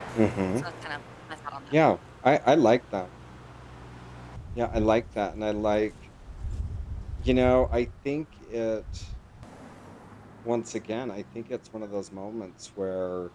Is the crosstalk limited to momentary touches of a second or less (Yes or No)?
Yes